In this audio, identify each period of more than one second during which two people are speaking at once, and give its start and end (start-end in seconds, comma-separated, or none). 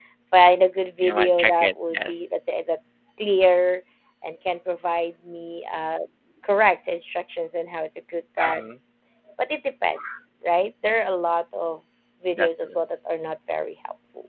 1.0-2.3